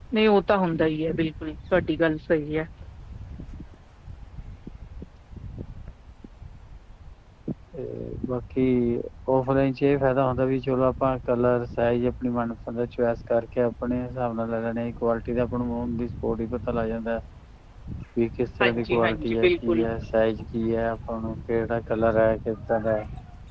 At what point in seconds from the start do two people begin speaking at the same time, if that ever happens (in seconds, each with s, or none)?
18.6 s